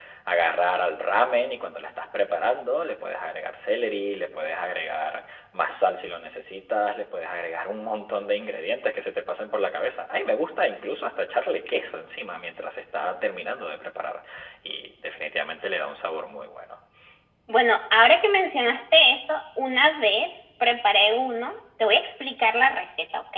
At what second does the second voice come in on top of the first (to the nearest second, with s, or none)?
none